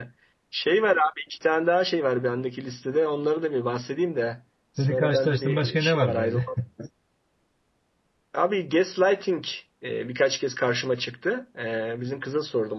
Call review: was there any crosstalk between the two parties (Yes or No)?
Yes